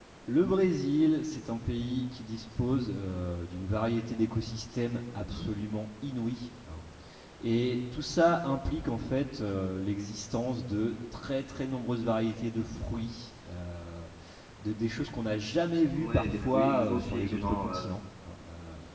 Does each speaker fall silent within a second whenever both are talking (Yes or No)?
No